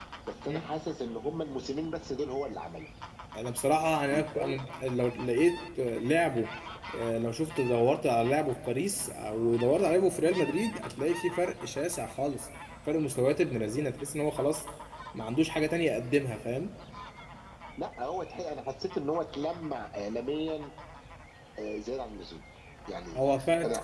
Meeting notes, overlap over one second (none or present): none